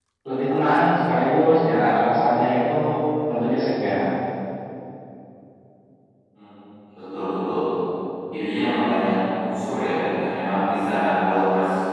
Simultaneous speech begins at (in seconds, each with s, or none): none